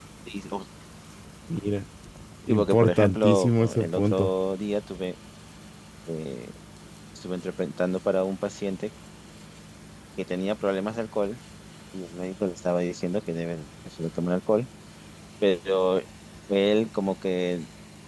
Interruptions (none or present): present